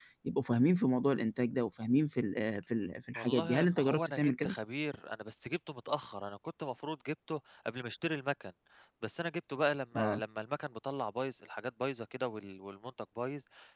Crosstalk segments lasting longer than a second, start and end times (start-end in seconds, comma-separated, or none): 3.1-4.5